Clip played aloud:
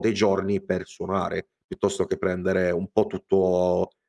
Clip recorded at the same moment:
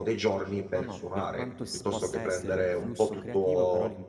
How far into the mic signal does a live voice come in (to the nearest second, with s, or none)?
1 s